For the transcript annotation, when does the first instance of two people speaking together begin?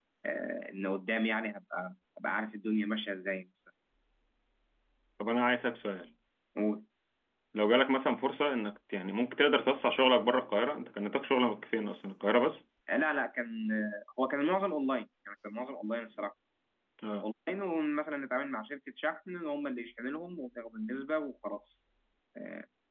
none

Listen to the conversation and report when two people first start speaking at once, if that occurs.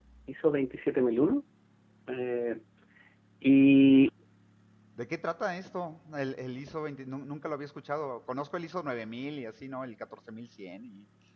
none

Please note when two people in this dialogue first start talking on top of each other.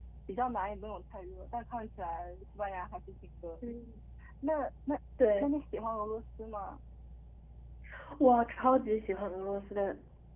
none

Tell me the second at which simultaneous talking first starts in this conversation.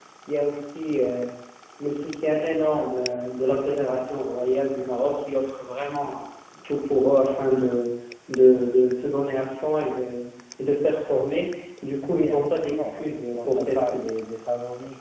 12.1 s

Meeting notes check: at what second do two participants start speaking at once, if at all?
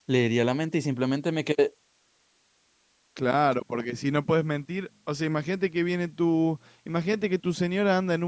none

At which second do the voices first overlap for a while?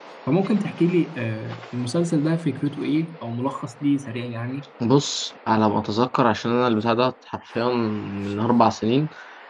none

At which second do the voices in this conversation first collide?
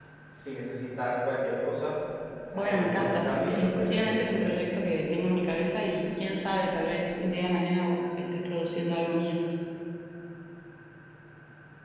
2.5 s

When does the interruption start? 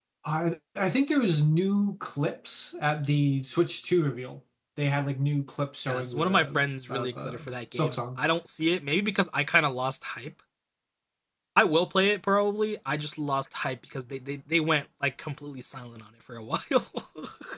5.9 s

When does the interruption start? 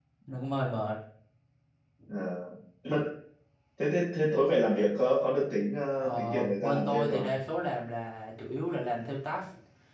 6.0 s

